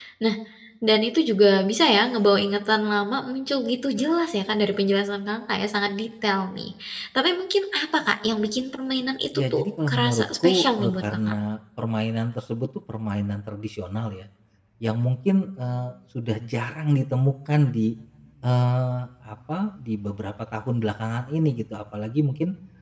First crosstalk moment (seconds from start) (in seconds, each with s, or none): 9.3 s